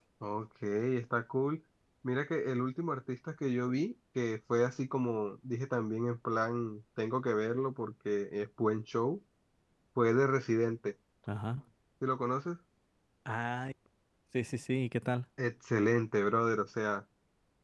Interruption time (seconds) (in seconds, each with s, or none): none